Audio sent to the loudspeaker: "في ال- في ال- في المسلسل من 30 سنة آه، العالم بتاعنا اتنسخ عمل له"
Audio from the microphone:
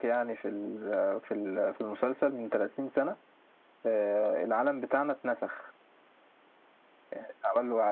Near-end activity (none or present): none